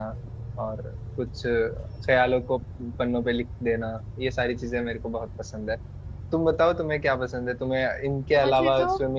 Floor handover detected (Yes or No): No